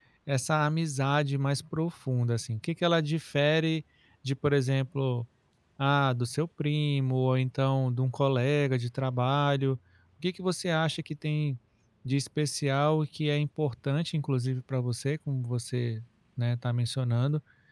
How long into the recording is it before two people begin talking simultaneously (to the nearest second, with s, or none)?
none